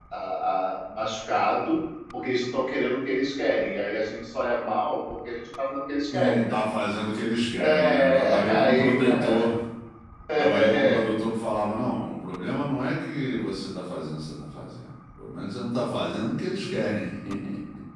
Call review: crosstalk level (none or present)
present